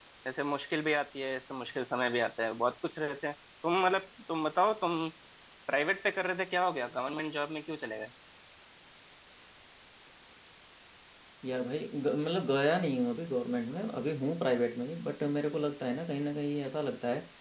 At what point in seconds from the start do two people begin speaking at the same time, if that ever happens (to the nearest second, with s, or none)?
none